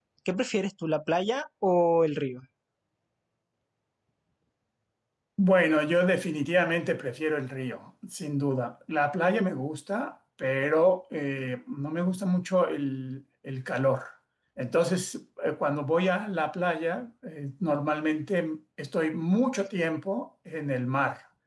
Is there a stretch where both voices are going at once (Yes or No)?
No